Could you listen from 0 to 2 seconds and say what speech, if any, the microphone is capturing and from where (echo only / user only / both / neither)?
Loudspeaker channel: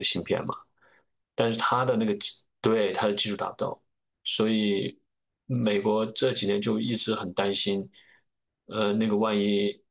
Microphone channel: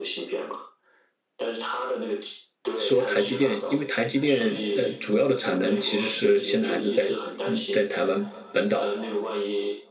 echo only